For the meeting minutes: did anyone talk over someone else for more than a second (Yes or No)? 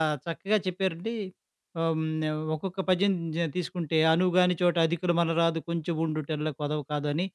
No